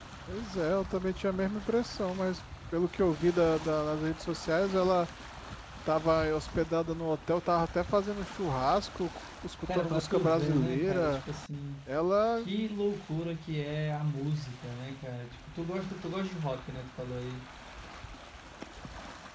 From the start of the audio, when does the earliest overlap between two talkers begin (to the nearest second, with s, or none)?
10 s